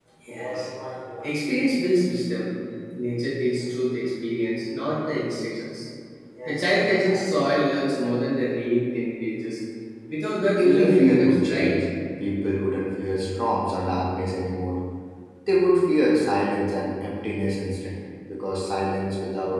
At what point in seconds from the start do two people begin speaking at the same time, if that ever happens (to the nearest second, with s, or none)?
11 s